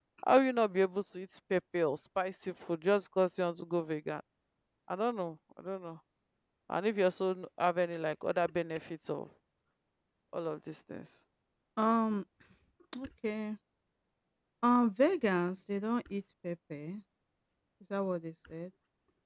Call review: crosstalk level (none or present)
none